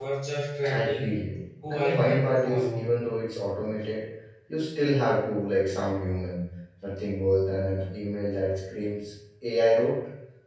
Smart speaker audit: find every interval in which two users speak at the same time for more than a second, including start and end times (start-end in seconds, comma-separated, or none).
1.7-3.0